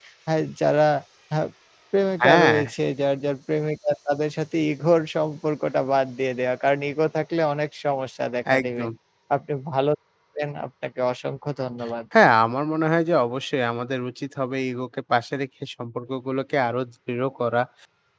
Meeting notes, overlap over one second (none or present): none